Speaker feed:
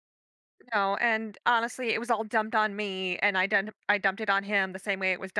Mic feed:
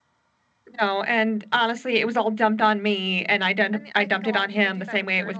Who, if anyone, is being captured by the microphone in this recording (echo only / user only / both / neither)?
both